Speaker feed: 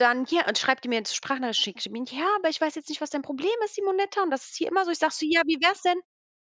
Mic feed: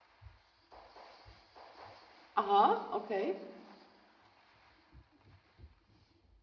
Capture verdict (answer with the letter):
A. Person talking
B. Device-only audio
A